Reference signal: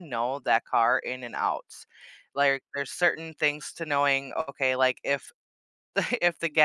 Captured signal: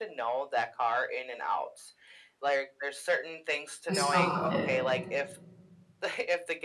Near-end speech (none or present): present